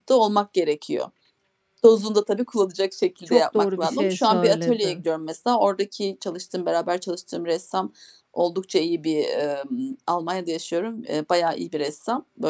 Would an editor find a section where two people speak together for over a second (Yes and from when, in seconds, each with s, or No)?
Yes, from 3.3 s